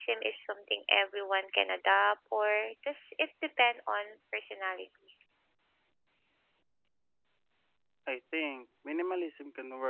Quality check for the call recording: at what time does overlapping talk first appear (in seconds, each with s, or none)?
none